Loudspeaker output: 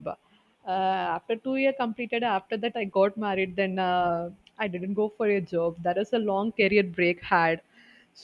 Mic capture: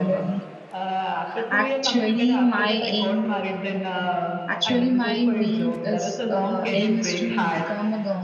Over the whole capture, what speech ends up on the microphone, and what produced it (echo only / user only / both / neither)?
both